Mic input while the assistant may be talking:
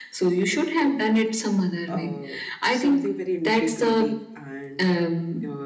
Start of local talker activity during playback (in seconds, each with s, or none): 1.9 s